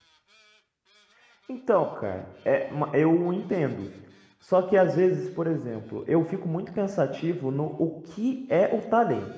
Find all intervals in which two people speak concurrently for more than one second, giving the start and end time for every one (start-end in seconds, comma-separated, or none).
none